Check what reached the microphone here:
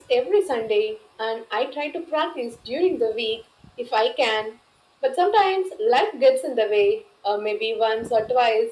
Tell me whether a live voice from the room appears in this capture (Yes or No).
No